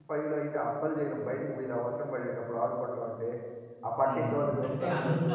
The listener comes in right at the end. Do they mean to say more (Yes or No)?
Yes